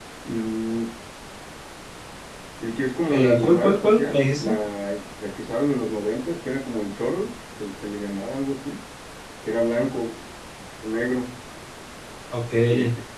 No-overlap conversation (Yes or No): No